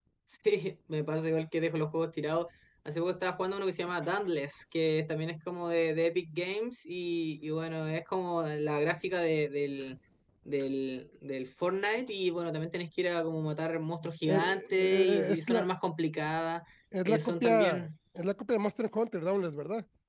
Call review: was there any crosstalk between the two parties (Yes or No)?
Yes